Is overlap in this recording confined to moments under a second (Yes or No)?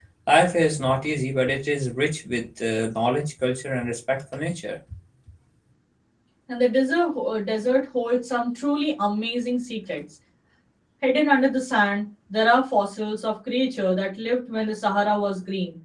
Yes